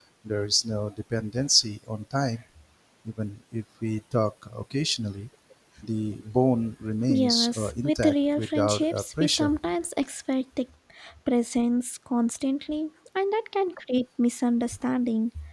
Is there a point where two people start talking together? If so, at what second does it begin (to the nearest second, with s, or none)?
7 s